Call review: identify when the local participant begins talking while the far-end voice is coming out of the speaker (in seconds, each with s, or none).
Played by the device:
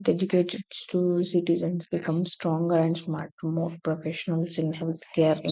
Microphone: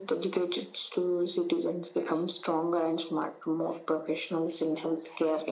none